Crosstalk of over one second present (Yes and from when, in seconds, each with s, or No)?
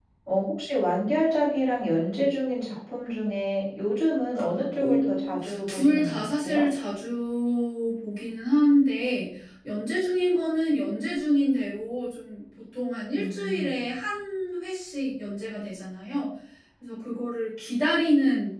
Yes, from 4.8 s